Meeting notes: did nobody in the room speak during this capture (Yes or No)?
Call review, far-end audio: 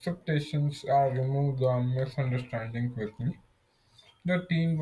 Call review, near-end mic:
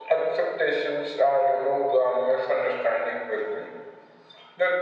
Yes